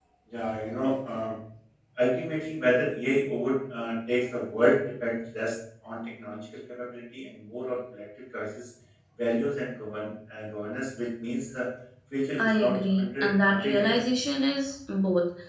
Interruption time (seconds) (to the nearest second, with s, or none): 12 s